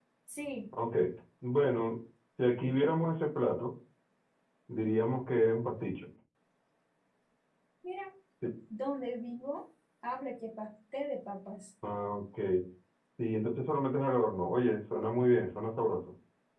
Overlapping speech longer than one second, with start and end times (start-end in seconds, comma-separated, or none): none